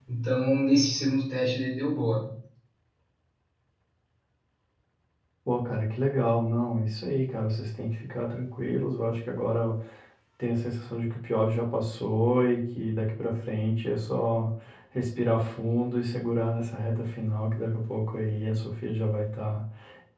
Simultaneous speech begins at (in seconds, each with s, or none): none